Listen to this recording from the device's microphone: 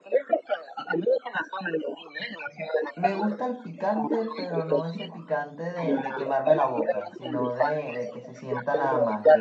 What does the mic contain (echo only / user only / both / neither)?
both